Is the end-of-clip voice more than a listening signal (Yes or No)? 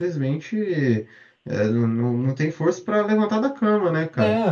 No